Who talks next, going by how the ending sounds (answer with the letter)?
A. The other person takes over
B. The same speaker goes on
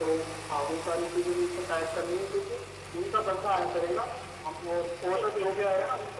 B